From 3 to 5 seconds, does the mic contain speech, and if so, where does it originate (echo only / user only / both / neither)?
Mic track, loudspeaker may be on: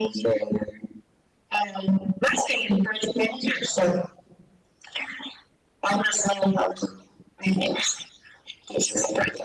echo only